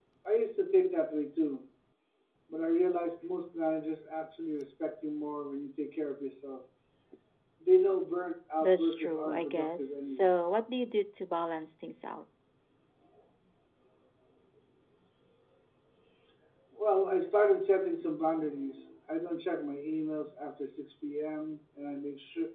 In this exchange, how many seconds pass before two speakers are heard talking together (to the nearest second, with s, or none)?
9 s